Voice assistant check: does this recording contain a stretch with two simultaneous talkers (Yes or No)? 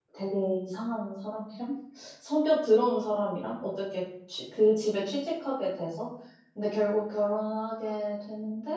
No